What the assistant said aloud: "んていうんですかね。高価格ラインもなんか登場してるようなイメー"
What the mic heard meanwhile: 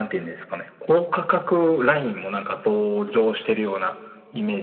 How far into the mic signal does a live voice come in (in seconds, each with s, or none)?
none